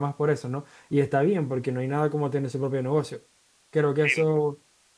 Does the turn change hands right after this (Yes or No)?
No